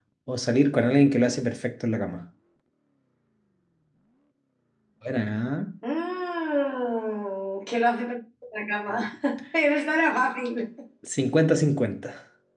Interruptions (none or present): none